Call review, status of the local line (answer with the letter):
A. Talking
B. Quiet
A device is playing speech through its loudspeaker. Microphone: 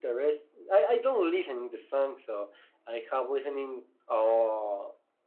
B